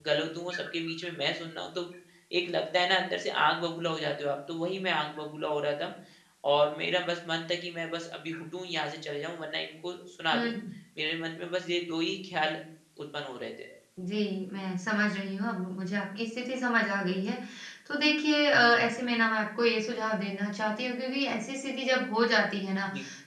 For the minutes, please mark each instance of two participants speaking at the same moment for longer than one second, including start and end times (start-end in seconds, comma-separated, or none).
none